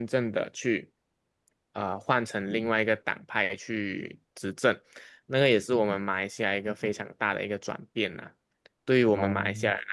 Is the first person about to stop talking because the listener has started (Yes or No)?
No